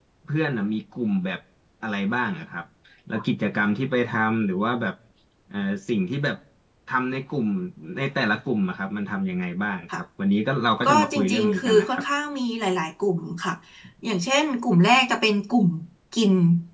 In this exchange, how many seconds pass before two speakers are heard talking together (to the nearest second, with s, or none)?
11 s